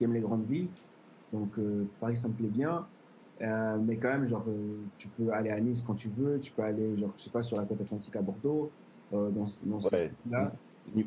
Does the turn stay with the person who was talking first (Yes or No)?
No